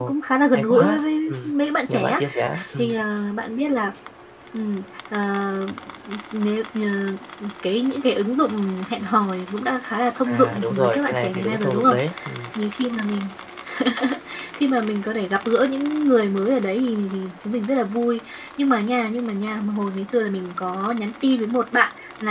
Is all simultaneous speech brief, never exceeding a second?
No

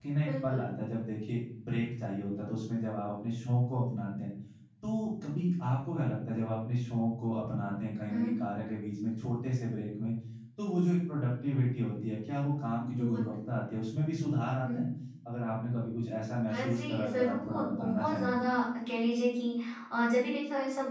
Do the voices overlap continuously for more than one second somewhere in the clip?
Yes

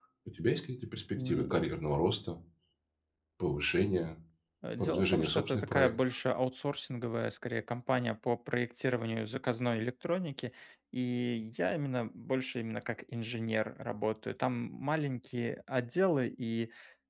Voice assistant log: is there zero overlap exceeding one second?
No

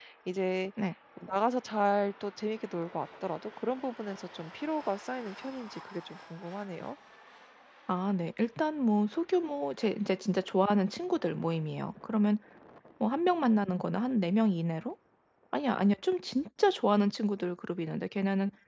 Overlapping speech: No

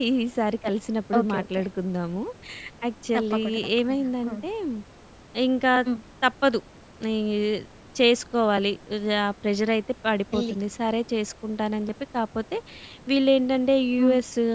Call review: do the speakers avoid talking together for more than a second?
No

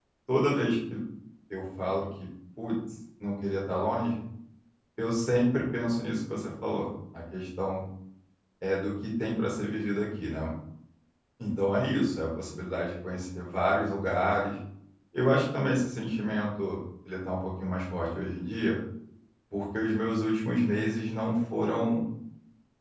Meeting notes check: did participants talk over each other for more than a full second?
No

